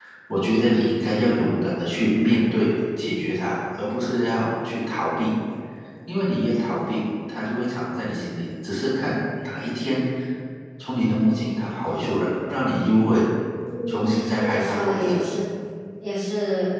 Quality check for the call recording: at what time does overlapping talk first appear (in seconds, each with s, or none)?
13.9 s